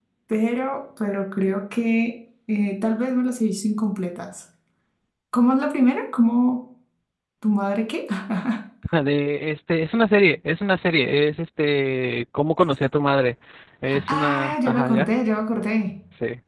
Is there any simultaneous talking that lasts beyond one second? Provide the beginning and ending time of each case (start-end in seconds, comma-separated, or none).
13.9-15.1